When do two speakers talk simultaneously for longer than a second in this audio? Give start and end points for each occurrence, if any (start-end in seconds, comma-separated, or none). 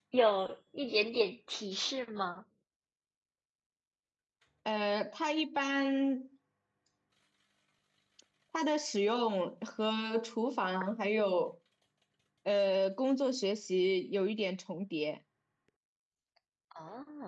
none